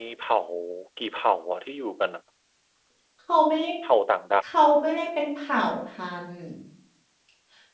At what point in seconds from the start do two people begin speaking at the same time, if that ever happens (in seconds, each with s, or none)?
none